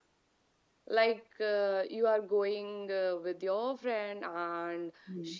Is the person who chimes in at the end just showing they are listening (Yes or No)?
Yes